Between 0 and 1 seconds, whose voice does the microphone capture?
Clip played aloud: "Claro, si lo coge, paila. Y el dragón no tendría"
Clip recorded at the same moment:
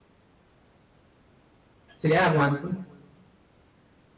neither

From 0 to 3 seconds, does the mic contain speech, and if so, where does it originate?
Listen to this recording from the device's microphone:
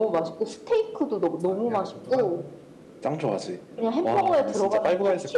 both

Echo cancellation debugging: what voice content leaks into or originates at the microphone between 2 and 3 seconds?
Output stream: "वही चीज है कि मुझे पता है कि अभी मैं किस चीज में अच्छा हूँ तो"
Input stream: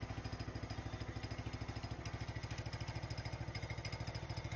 neither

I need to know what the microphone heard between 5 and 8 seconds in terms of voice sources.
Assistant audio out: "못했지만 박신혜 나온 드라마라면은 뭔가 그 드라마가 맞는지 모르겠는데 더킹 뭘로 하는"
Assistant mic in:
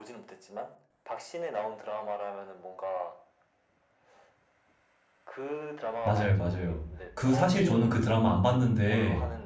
both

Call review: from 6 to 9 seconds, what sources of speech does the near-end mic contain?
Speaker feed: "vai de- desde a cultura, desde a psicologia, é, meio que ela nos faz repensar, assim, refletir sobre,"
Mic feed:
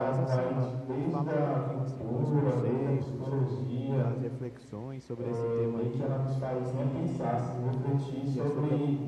both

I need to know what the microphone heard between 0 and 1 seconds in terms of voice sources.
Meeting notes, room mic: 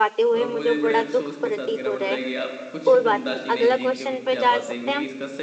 both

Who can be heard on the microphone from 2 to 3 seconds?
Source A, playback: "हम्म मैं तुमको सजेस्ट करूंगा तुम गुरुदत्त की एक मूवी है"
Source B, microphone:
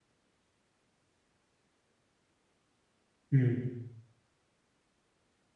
neither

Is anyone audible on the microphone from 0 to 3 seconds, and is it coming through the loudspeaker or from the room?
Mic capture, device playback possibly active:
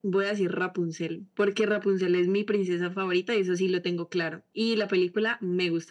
echo only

